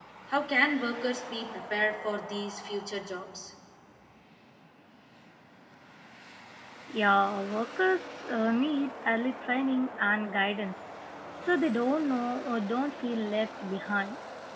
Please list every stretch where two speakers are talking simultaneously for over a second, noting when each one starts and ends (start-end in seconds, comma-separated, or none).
none